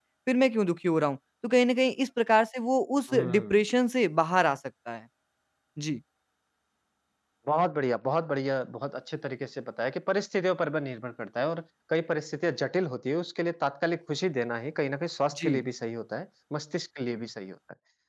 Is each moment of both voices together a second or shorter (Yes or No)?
Yes